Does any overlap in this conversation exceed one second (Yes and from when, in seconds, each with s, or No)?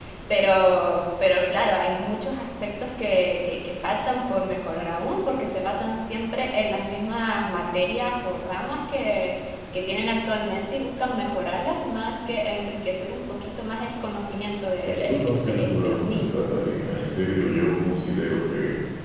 Yes, from 14.8 s